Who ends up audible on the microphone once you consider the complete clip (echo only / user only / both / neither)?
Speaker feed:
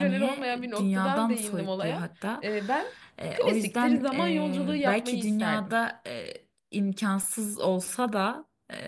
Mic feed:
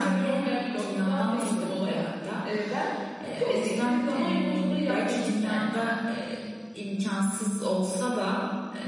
echo only